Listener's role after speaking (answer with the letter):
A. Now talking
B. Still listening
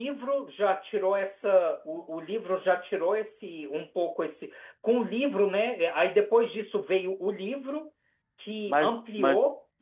A